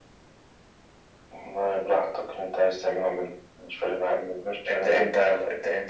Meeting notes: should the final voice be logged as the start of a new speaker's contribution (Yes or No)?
Yes